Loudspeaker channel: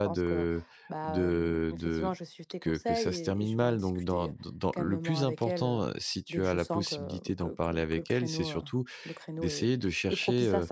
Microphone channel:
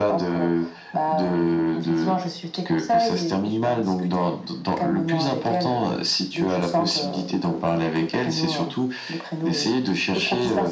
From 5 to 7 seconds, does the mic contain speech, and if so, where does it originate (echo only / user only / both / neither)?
echo only